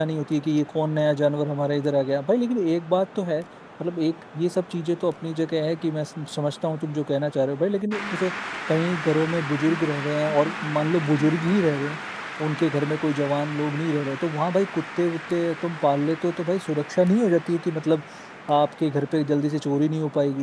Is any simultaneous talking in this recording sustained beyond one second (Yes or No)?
No